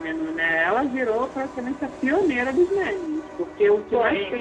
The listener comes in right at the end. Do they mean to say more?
No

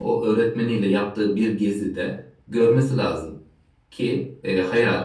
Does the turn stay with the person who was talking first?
Yes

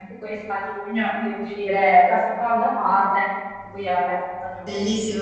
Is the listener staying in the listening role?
No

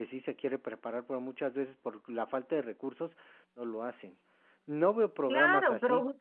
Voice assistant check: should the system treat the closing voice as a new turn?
Yes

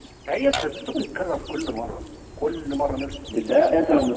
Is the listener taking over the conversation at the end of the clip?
Yes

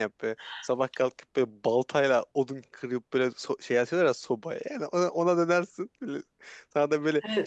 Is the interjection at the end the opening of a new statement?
No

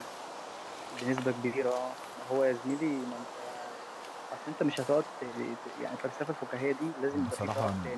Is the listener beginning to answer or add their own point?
Yes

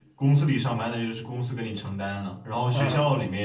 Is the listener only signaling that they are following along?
Yes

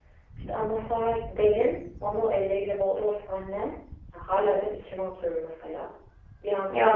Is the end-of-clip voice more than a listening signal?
No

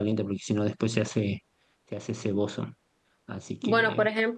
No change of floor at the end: No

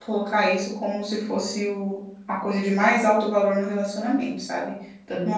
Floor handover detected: No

